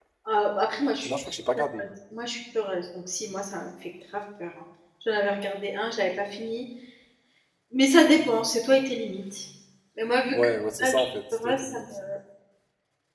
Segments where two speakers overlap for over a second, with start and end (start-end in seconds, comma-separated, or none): 10.3-11.8